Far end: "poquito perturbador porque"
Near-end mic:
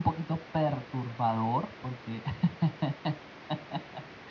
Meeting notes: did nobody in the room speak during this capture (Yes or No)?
Yes